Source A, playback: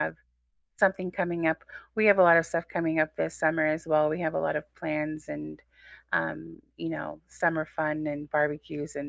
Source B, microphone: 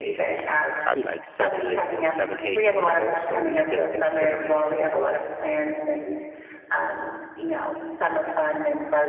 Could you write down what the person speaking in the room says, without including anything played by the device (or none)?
probably like seven years ago, seven, eight years ago. So we've been considering